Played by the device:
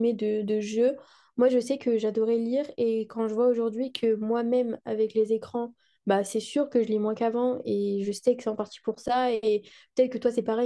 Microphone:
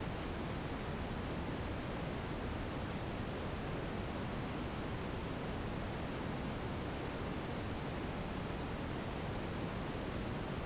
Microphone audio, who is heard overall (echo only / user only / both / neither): neither